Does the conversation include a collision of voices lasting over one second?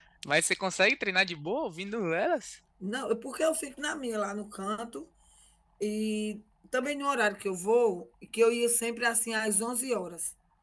No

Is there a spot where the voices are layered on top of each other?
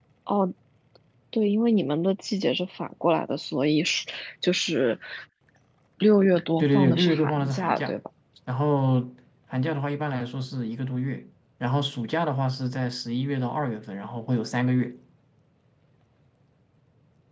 Yes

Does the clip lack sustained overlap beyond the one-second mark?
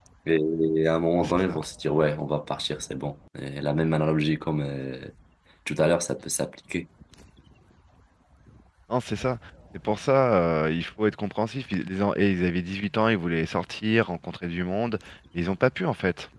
Yes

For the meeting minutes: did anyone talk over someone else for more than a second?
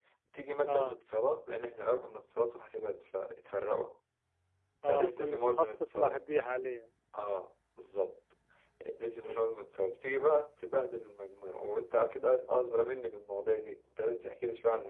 Yes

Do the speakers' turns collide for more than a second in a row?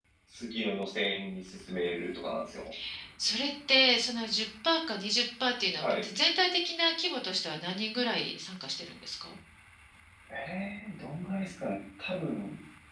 No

